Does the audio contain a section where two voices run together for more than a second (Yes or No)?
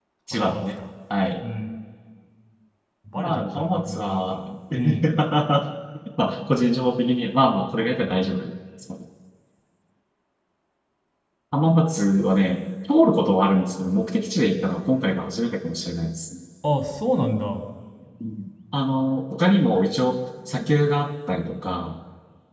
Yes